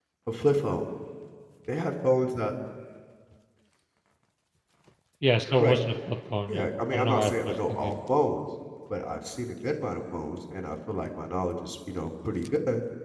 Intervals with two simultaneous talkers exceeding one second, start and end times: 6.5-8.0

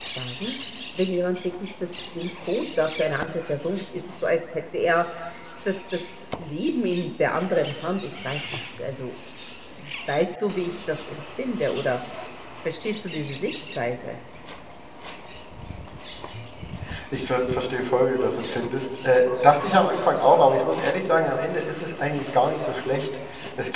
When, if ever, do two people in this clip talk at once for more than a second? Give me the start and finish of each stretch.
none

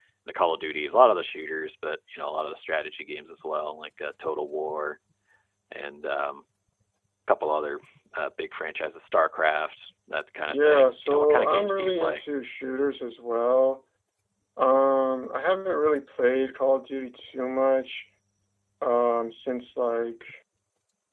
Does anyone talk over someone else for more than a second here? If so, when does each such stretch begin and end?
10.5-12.2

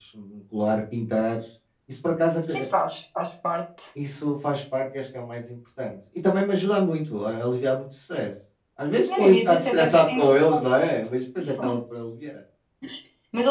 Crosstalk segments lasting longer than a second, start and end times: 9.1-10.6

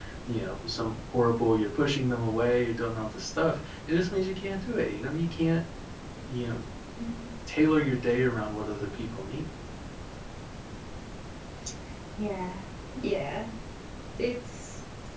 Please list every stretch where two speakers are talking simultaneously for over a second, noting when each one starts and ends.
none

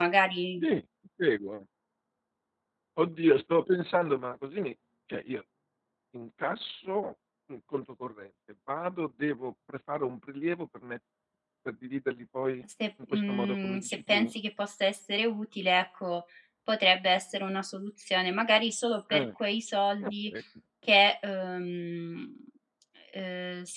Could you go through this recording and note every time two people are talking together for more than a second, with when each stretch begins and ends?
13.1-14.3

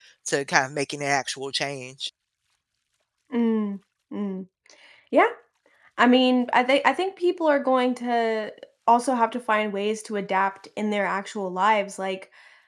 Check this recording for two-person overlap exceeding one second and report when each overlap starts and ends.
none

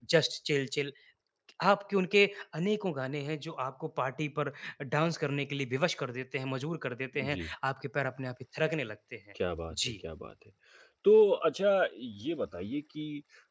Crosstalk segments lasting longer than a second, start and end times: none

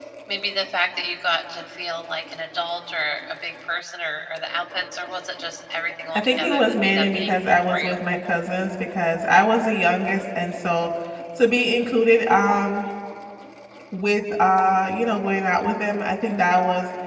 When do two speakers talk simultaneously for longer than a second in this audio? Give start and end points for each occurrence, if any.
6.1-8.0

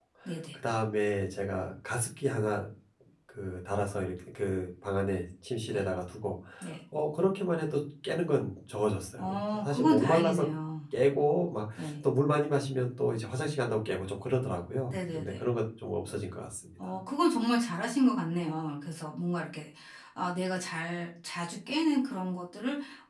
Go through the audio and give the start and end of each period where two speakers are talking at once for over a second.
9.2-10.4

